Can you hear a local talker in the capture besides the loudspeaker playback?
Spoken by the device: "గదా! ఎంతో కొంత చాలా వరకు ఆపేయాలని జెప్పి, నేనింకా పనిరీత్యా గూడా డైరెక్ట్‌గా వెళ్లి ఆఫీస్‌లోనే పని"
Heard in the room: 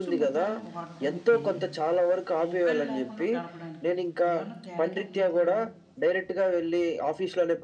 Yes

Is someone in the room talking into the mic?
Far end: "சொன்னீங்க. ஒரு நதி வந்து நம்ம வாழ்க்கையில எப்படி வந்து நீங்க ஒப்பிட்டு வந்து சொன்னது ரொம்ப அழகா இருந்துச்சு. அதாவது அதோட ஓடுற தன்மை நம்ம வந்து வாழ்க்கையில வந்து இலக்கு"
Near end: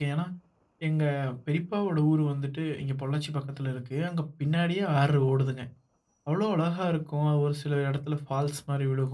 Yes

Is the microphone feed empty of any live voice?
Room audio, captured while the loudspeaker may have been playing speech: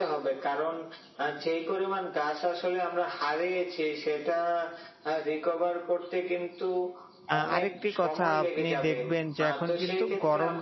No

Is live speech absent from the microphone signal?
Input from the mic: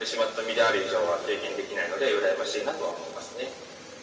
Yes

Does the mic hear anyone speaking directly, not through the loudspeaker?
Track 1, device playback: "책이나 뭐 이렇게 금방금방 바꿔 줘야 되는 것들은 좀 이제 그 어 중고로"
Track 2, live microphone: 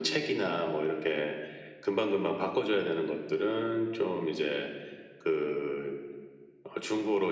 No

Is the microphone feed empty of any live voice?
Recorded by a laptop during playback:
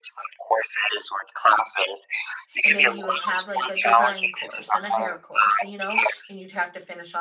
No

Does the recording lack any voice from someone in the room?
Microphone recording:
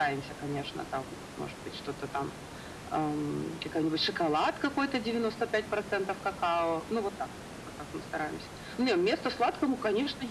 Yes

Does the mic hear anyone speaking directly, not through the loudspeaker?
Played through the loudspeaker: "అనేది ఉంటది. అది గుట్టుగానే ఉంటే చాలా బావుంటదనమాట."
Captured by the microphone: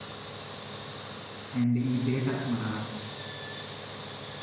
Yes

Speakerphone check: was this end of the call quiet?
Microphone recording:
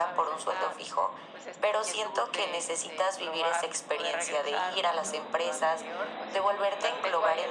Yes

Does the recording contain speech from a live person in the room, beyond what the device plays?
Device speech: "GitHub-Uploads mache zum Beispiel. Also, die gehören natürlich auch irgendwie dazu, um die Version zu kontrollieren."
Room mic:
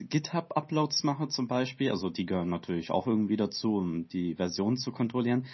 No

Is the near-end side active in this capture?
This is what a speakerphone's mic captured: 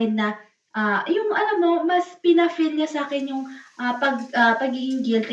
No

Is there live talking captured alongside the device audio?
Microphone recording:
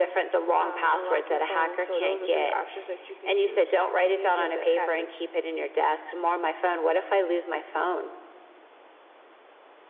No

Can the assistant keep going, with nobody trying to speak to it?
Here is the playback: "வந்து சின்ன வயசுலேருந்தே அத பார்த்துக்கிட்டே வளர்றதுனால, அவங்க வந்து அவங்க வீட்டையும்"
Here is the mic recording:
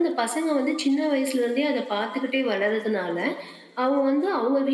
Yes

